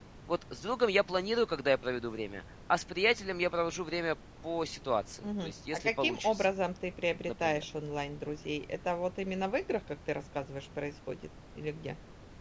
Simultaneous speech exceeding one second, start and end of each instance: 5.2-6.5

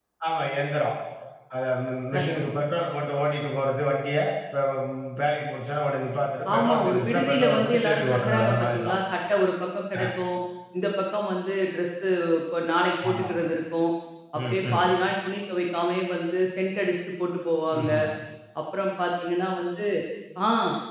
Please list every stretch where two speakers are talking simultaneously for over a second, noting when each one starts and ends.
6.5-8.9

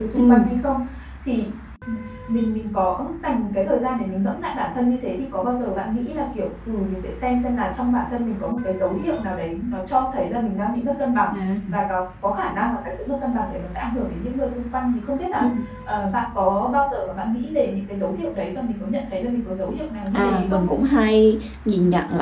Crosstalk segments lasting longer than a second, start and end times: none

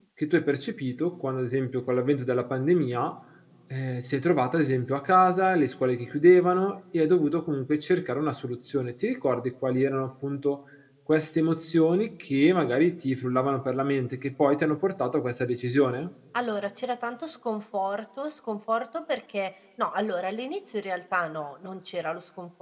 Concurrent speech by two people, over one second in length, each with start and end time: none

